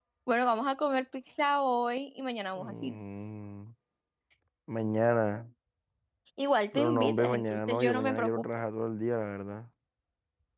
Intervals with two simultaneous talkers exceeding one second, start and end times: 6.7-8.4

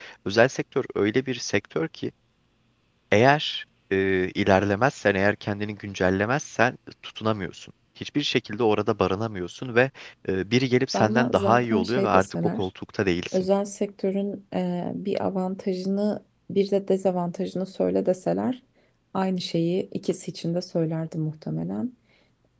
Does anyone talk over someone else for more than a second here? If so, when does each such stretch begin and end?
10.9-12.7

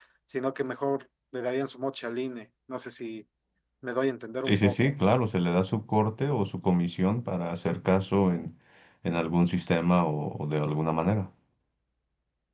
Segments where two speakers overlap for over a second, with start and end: none

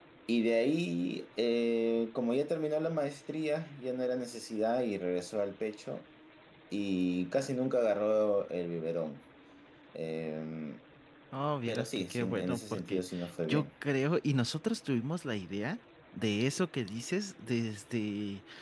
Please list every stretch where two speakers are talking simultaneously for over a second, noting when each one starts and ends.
11.7-13.0

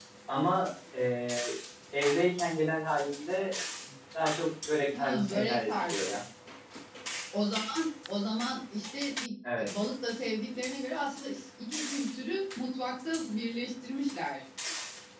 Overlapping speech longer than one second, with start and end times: 5.0-6.2

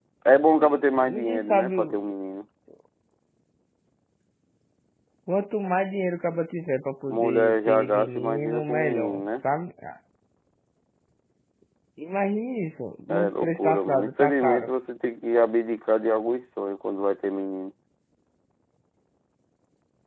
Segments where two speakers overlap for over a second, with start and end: 0.6-2.1, 7.1-9.2, 13.1-14.7

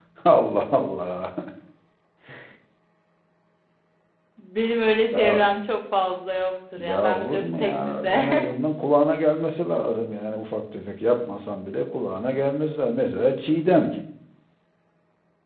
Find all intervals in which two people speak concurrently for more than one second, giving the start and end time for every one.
6.8-8.3

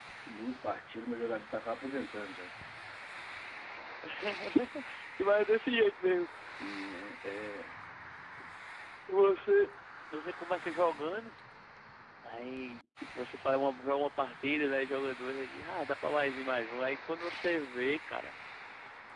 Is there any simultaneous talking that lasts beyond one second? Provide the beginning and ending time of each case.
none

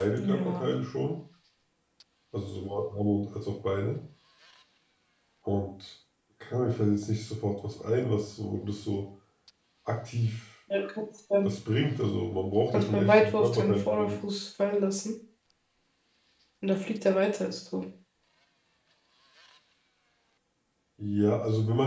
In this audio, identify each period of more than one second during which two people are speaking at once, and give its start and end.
12.7-14.1

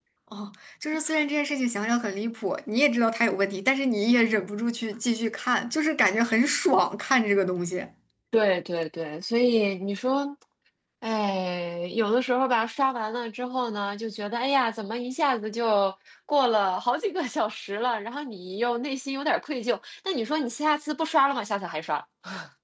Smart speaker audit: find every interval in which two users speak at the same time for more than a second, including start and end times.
none

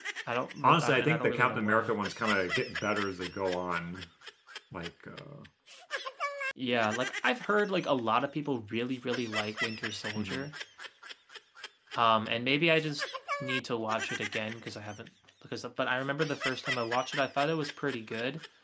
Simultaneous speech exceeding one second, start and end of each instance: 0.6-1.9

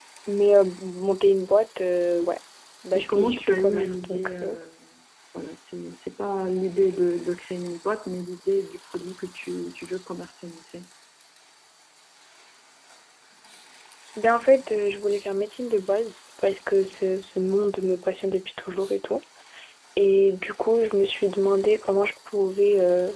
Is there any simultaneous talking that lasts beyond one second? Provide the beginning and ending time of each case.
2.9-4.6

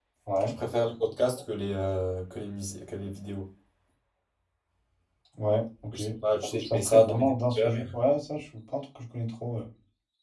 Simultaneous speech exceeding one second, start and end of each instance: 6.5-7.8

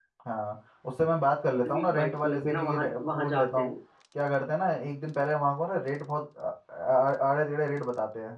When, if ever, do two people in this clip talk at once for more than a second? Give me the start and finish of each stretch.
1.7-3.8

